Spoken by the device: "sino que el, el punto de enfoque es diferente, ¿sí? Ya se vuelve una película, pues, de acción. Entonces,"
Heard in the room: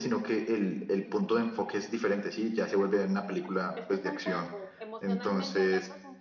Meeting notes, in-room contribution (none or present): present